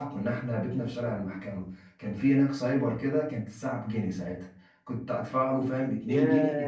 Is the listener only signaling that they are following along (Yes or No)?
Yes